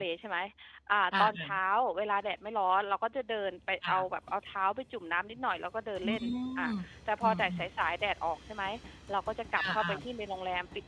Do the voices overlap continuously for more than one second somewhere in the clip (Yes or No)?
No